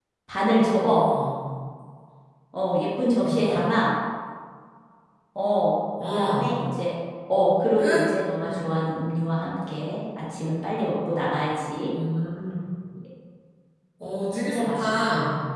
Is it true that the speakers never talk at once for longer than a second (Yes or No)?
No